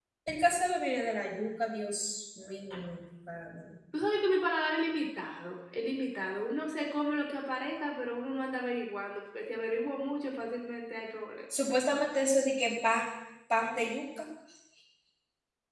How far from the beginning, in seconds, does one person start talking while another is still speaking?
none

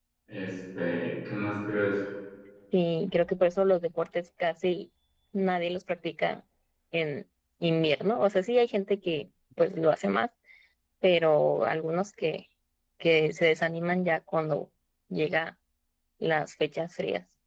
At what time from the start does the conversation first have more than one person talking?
none

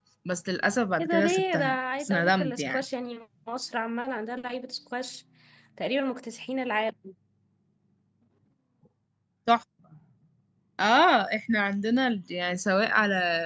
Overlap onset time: 1.0 s

